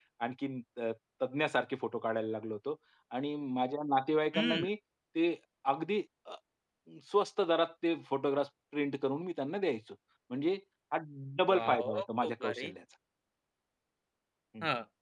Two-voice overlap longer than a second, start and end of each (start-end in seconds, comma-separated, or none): 11.5-12.7